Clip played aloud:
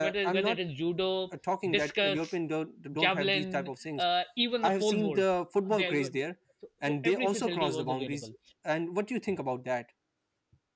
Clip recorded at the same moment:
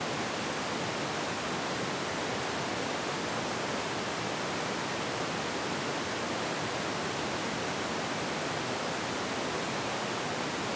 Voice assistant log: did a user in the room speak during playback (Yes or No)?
No